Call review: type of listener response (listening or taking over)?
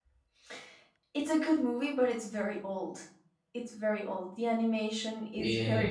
taking over